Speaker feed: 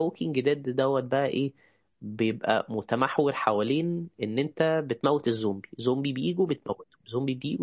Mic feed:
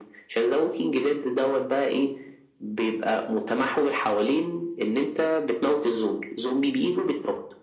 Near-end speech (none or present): none